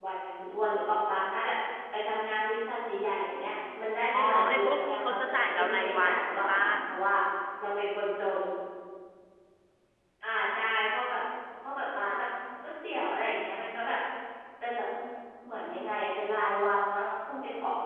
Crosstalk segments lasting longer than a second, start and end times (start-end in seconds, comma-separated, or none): 4.1-6.6